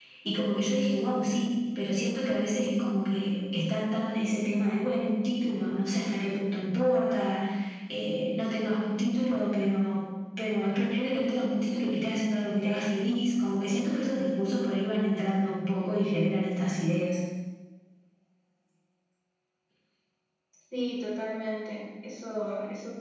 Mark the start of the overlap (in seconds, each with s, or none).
none